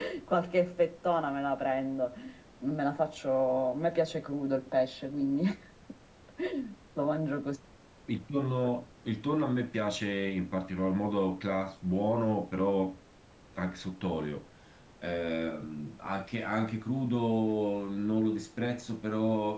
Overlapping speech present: No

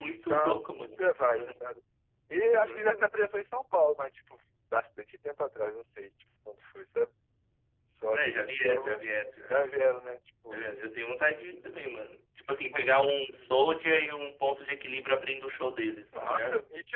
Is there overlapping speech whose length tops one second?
Yes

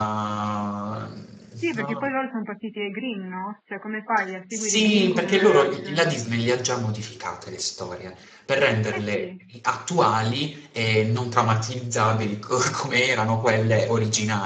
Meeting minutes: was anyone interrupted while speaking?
Yes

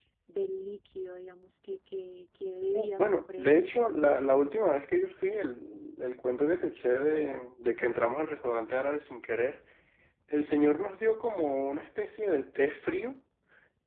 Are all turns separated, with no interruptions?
No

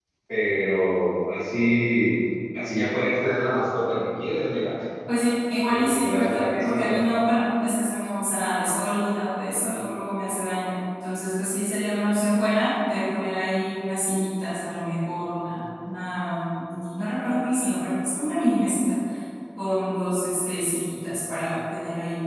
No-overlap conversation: No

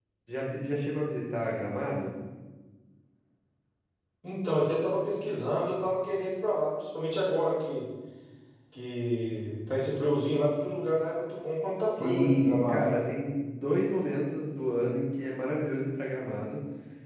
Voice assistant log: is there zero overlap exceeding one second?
No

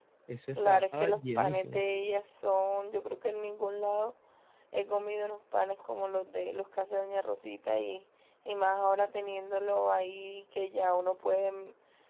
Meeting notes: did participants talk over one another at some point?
Yes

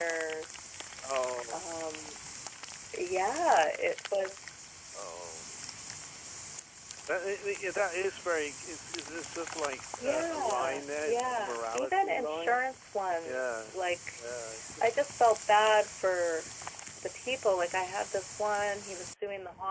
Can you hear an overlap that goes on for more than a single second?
Yes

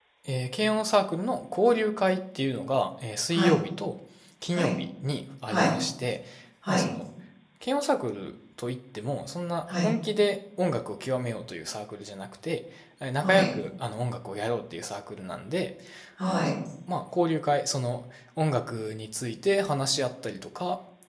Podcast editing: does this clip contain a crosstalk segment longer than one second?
No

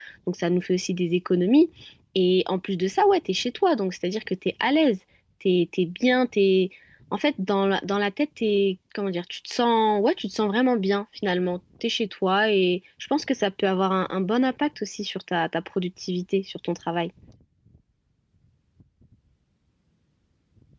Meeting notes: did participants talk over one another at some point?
No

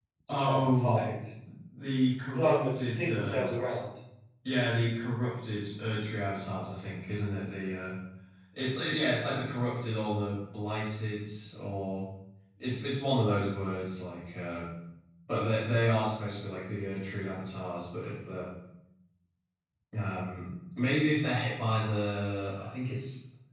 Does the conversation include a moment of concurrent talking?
Yes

